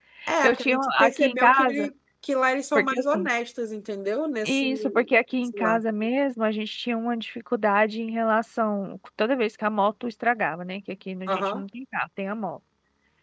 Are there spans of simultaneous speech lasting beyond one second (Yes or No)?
Yes